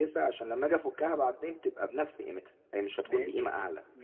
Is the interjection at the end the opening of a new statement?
Yes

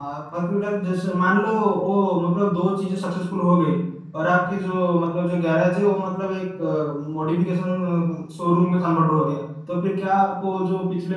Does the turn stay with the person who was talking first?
Yes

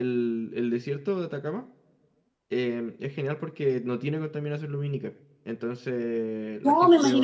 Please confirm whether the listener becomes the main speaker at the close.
Yes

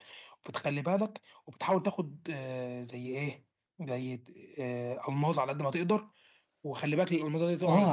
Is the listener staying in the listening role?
No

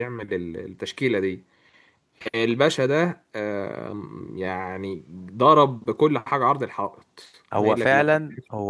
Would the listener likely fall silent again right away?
No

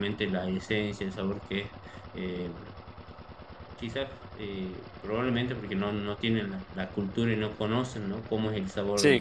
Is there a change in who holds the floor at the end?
No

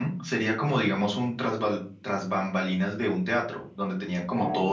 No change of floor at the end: Yes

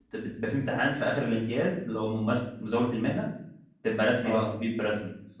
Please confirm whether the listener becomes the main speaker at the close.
No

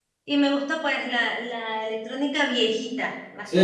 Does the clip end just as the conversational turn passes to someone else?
Yes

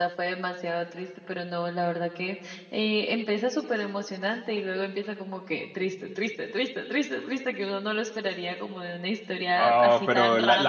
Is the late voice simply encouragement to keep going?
No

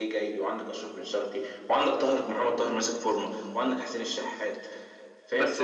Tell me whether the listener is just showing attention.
No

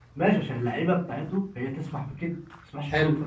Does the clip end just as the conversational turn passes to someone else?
Yes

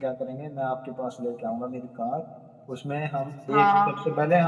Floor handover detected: No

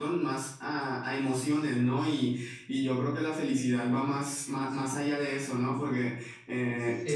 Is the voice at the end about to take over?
No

